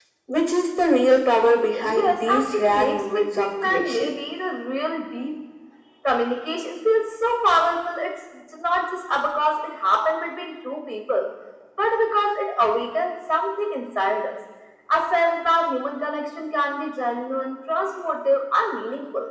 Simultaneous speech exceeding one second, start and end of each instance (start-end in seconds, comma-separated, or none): 1.8-4.1